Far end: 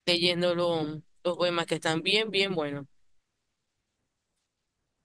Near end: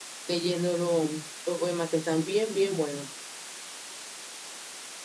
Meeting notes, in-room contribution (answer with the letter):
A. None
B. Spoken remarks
A